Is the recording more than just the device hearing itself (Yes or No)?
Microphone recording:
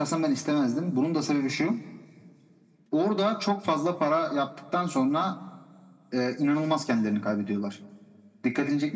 No